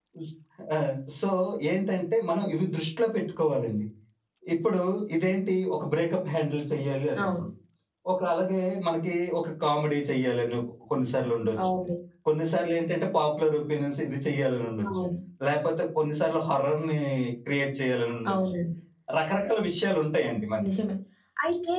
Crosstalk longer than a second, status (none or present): none